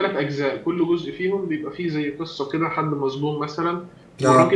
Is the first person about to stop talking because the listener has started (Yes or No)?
No